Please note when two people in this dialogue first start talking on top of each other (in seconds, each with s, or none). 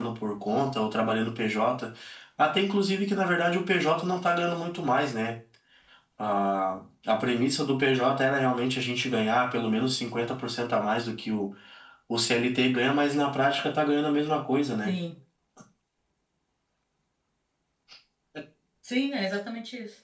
none